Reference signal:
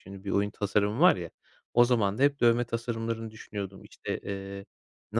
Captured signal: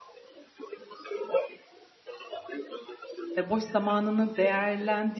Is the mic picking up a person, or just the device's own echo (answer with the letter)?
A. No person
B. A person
B